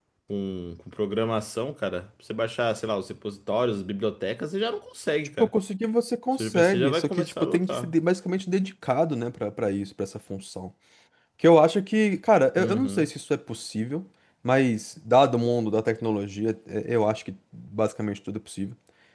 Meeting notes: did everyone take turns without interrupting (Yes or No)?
No